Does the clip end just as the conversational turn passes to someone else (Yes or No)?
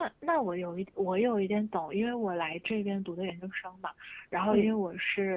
No